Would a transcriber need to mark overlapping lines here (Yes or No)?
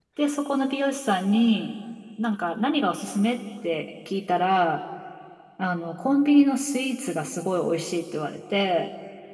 No